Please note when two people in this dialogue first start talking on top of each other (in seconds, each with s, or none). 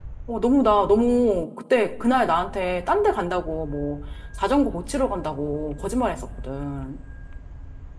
none